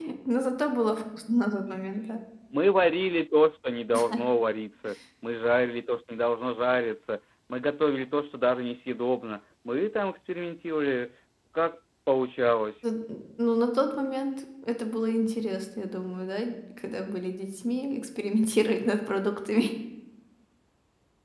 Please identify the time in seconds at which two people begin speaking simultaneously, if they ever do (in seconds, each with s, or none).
none